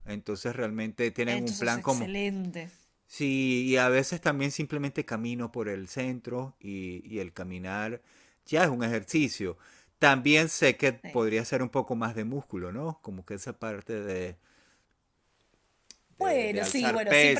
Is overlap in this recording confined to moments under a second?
No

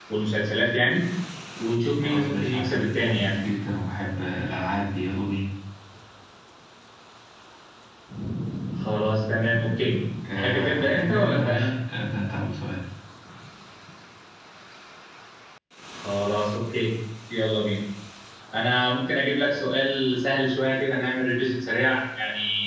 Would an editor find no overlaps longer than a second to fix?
No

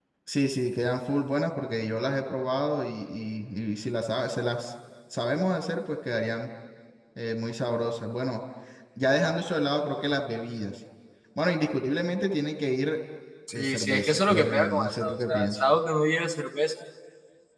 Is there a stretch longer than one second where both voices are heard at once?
Yes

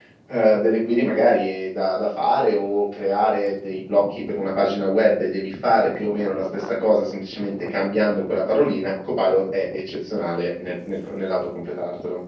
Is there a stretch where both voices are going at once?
No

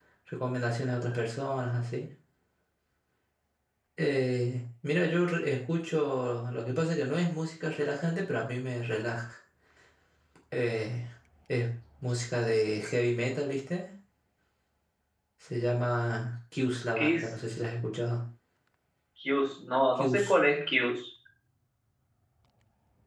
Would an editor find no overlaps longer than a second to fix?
Yes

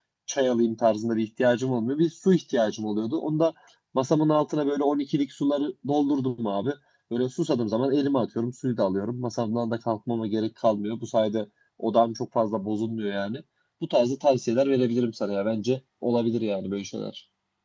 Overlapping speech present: No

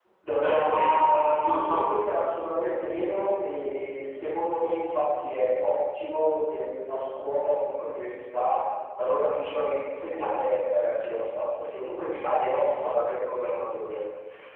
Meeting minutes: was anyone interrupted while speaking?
Yes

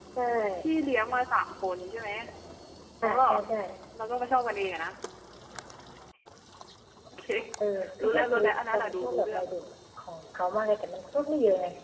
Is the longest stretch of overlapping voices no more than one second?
No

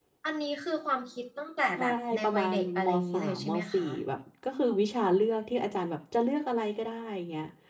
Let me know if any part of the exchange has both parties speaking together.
Yes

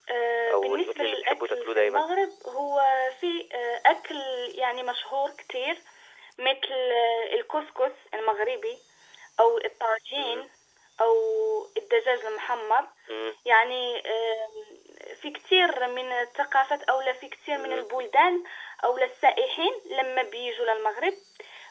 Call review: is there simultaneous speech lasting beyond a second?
Yes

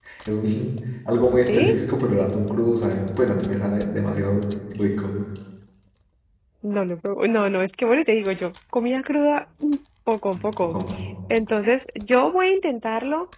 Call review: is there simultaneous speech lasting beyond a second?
No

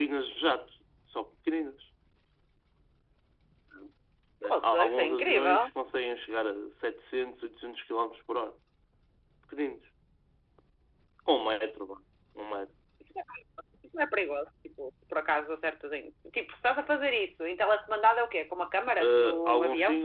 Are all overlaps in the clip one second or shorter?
No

